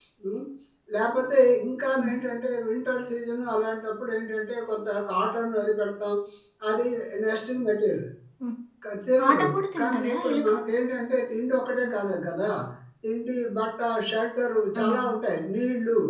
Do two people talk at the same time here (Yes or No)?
Yes